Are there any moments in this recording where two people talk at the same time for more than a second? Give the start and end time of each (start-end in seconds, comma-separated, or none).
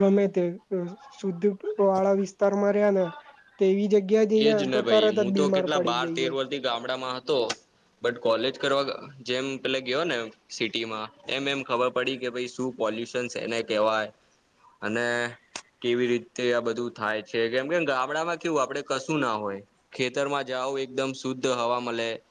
4.5-6.3